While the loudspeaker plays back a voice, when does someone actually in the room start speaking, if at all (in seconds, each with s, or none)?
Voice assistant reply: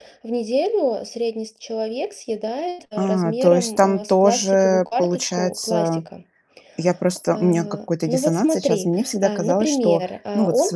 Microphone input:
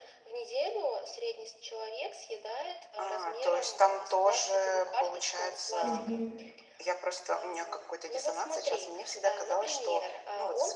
5.8 s